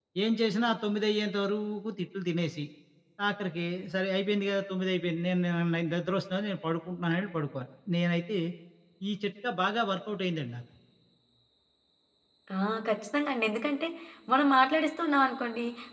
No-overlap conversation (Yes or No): Yes